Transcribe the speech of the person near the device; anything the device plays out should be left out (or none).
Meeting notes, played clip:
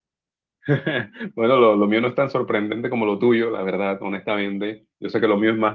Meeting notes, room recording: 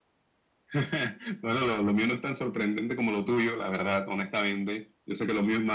none